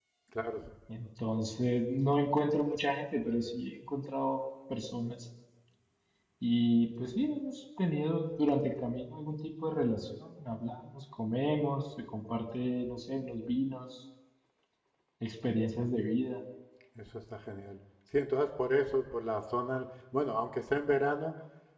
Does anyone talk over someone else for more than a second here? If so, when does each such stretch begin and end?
none

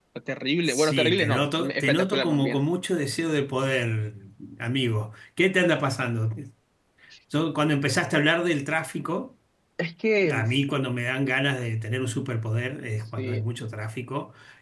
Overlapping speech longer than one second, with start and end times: 0.7-2.6

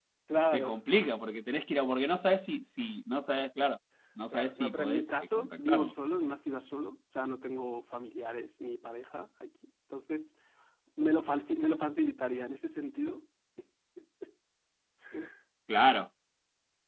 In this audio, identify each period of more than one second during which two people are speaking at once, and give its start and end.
4.3-5.9

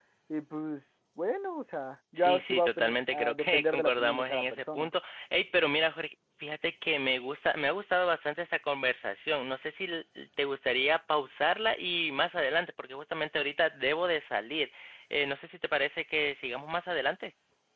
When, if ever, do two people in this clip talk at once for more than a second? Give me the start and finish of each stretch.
2.1-4.9

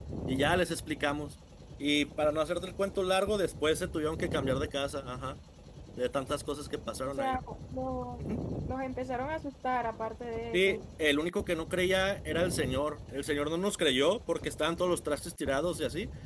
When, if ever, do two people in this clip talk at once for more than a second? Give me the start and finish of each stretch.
none

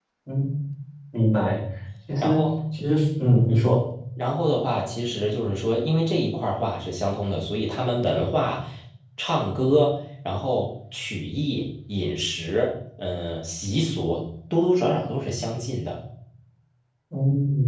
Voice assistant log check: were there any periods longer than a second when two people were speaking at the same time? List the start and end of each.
none

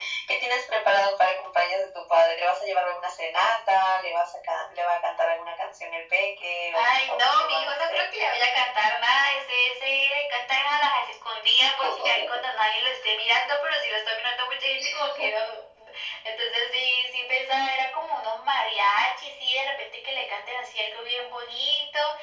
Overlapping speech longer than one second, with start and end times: 6.7-8.0

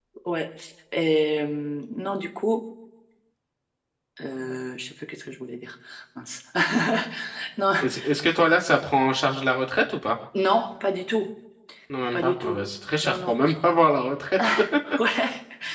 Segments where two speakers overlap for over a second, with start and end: none

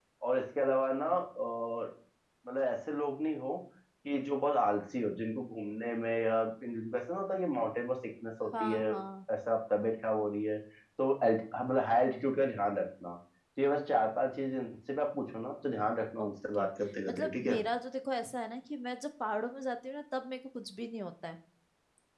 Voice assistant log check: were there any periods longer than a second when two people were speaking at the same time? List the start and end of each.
none

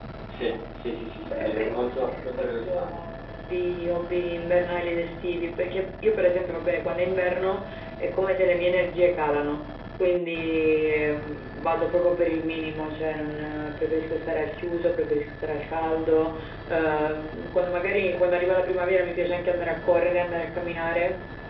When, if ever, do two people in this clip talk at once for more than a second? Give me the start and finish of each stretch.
1.3-2.9

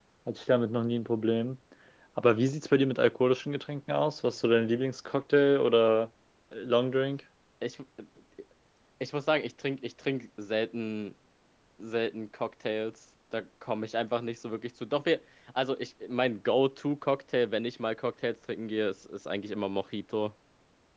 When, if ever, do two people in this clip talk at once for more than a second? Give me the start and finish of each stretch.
none

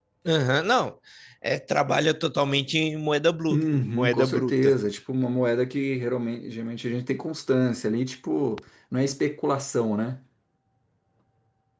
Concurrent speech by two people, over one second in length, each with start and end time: 3.5-4.8

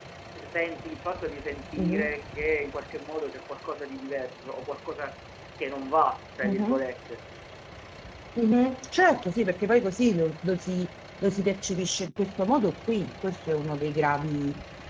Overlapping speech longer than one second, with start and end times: none

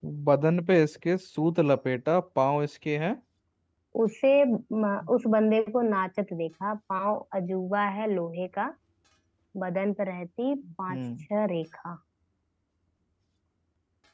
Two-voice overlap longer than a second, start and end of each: none

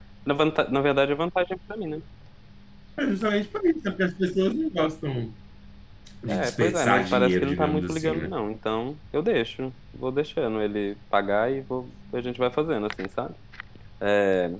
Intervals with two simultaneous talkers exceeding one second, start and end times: 6.3-8.3

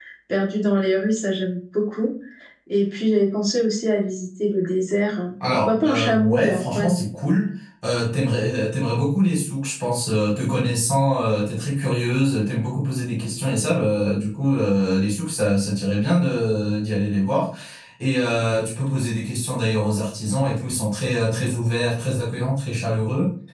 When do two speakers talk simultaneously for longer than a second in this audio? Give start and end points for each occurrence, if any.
5.5-6.9

